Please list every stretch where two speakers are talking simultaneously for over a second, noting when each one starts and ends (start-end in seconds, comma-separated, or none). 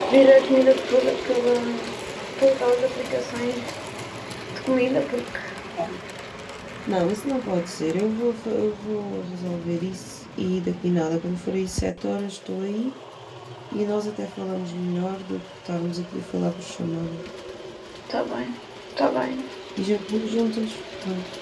none